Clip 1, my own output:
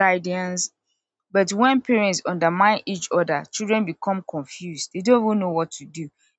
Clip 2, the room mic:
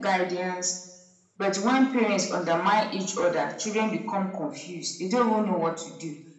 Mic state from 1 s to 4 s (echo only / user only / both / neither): echo only